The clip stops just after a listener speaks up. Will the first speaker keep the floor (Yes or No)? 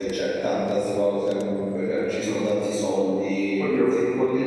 No